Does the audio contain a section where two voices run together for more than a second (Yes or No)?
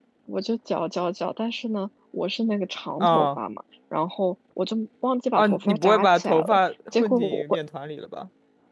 Yes